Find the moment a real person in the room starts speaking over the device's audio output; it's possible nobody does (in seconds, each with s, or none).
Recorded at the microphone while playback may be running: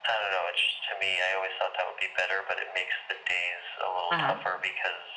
4.1 s